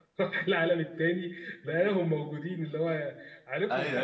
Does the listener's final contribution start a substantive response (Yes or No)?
Yes